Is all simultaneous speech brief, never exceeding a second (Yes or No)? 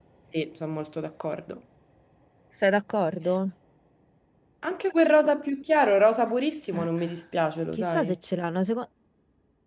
Yes